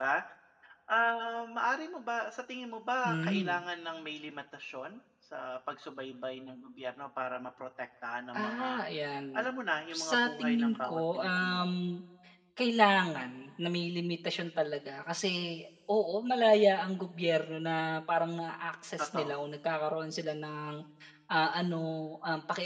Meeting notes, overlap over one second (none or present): present